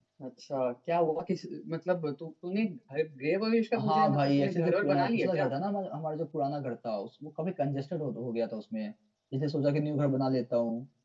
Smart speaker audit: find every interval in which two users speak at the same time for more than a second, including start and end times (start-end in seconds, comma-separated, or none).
3.8-5.5